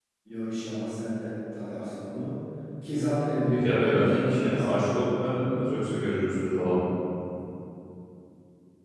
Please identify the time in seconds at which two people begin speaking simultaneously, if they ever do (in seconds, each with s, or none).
3.5 s